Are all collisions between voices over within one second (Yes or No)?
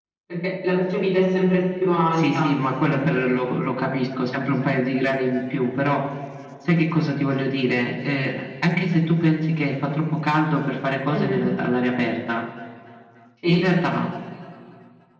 Yes